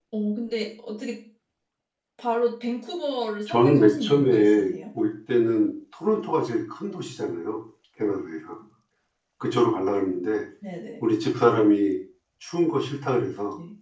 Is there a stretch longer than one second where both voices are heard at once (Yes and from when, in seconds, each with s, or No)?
Yes, from 3.5 s